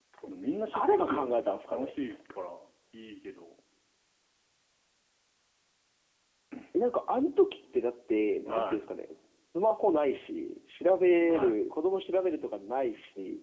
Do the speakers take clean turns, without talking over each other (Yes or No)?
No